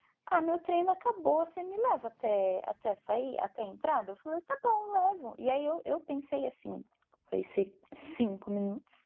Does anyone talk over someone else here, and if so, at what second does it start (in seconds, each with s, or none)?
none